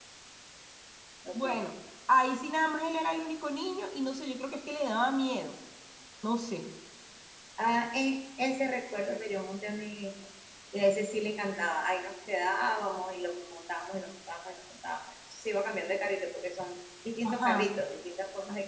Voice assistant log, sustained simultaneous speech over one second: none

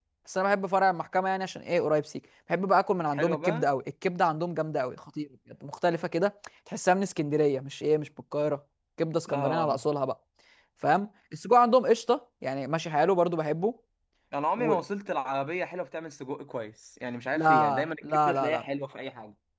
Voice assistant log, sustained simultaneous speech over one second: present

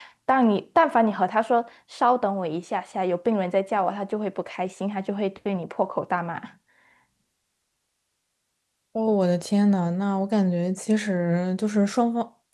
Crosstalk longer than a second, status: none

